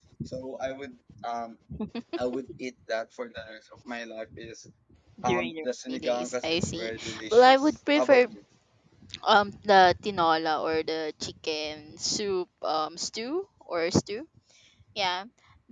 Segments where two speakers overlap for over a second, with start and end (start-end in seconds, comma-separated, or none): 5.2-8.3